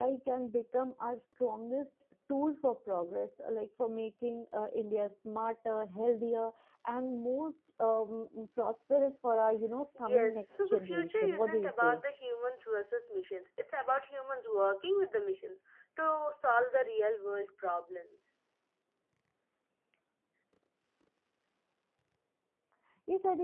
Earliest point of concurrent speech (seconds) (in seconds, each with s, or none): 9.9 s